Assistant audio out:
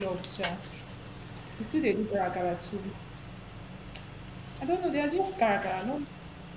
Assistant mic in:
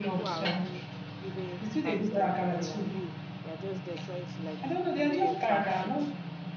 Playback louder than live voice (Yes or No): Yes